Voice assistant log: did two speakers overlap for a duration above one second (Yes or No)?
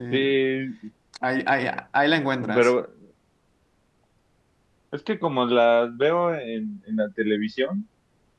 No